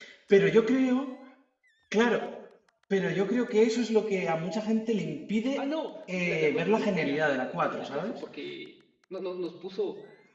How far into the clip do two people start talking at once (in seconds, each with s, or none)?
6.2 s